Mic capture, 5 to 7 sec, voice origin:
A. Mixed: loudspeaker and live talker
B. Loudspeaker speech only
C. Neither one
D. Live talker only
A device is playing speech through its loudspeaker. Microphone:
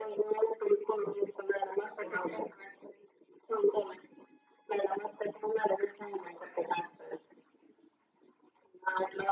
B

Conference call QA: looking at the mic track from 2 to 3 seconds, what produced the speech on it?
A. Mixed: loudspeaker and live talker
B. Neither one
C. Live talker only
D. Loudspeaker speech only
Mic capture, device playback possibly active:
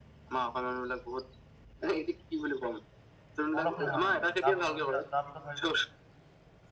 D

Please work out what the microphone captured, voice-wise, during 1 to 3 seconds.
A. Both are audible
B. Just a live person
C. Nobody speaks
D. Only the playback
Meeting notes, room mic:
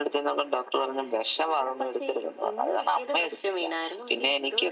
D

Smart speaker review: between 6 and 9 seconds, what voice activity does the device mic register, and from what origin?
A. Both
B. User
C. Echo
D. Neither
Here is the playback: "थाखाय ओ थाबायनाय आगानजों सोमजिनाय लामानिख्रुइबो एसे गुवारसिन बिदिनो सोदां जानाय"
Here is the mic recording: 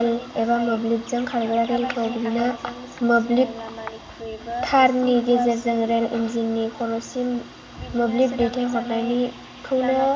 A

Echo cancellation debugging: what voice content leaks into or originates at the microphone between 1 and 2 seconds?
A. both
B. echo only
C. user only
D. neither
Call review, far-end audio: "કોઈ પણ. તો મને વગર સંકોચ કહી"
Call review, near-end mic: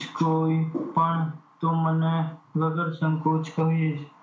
B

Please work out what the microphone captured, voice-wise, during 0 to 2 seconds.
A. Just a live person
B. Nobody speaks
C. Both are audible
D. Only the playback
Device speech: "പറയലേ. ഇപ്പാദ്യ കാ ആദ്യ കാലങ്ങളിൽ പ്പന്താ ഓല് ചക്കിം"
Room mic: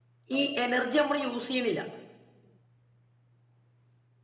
A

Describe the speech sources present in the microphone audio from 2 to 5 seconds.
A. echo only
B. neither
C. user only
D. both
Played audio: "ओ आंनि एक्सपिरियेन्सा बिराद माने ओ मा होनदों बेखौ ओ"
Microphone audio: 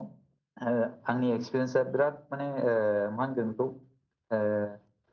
A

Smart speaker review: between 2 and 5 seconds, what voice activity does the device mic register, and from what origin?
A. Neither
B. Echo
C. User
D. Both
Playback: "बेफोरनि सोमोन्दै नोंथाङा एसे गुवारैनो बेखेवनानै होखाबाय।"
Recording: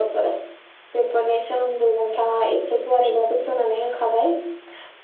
B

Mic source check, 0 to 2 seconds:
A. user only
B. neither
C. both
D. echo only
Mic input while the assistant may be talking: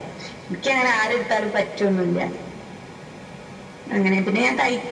D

